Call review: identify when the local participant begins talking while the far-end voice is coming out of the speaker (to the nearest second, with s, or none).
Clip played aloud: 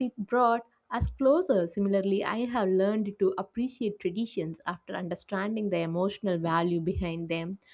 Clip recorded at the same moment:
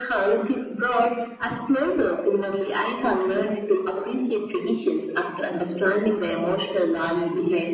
none